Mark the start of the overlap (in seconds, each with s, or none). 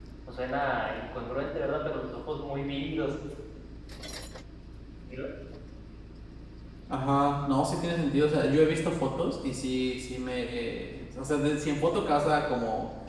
none